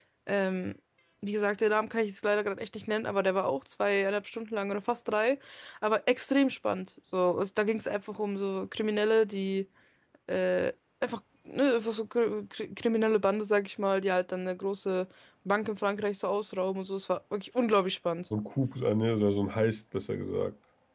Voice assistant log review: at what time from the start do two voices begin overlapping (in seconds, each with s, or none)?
none